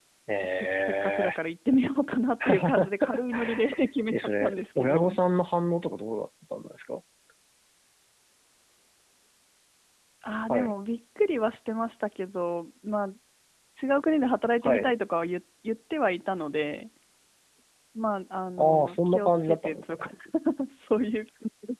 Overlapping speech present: Yes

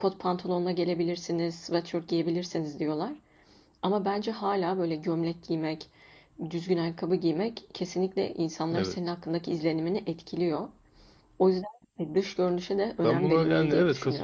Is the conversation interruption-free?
No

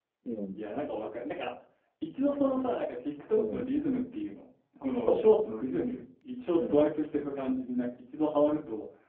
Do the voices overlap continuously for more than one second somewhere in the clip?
No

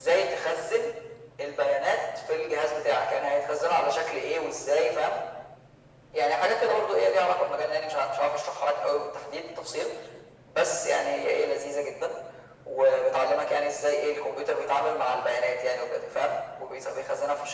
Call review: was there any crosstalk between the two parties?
No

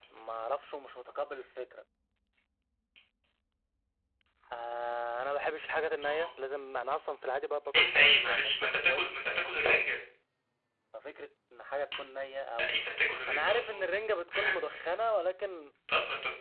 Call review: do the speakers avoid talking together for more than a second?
No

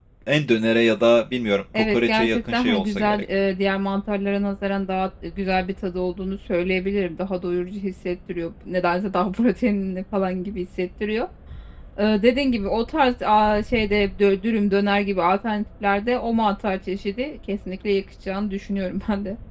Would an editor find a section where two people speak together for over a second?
Yes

